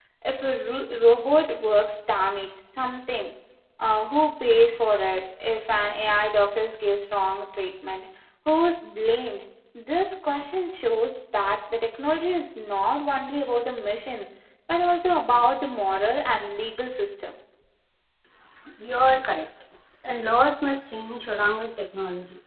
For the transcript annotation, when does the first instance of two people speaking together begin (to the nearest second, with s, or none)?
none